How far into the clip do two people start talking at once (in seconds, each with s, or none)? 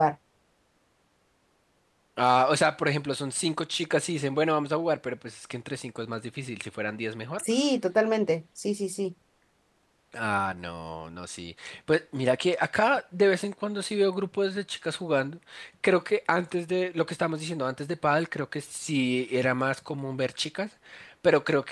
none